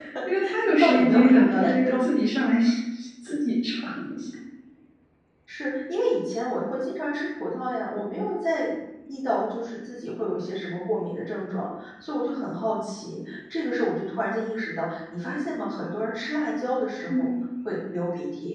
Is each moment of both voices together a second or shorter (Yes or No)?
No